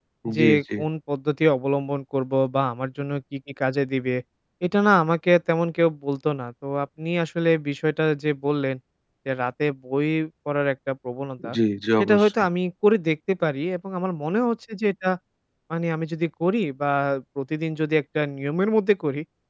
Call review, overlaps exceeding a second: none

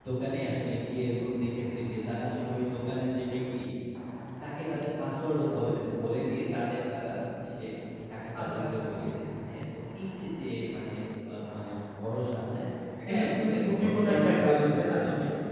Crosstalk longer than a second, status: present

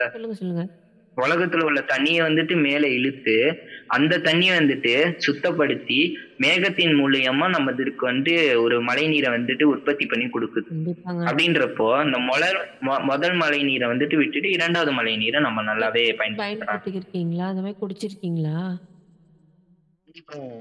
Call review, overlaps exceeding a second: none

